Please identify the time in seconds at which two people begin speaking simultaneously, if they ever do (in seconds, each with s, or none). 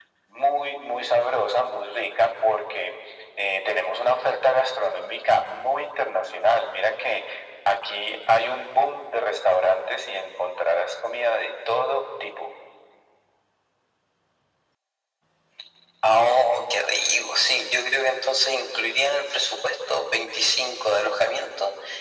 none